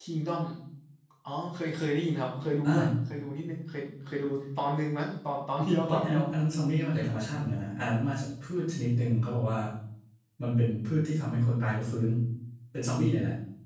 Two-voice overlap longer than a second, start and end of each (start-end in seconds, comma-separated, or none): none